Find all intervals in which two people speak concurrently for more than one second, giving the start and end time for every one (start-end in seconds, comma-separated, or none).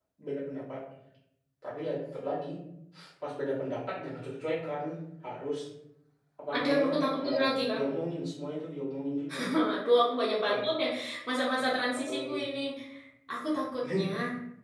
6.5-7.8